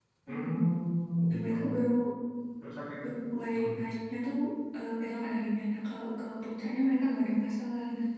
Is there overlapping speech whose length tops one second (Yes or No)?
No